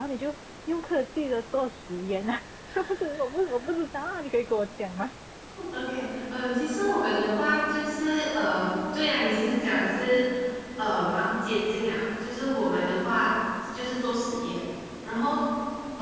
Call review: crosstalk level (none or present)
none